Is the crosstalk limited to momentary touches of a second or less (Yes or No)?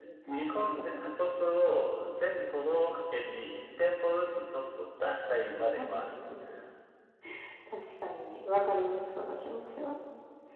Yes